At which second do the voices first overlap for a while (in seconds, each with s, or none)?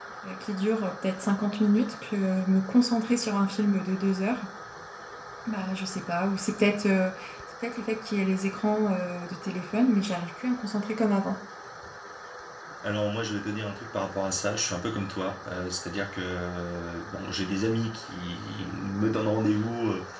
none